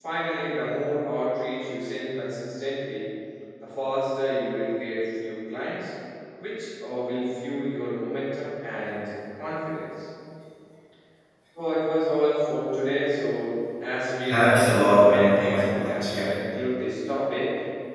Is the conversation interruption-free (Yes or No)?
No